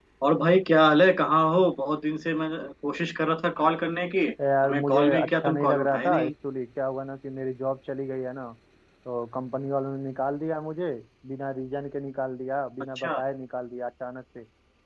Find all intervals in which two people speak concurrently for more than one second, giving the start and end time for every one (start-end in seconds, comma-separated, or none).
4.6-6.3